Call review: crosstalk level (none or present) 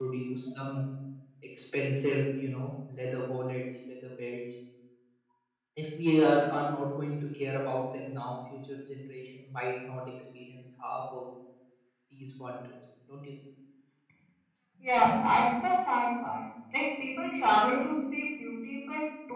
none